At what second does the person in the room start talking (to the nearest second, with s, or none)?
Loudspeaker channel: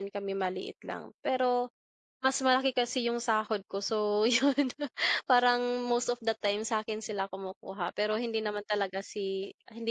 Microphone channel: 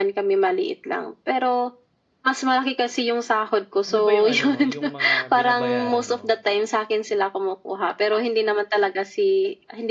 4 s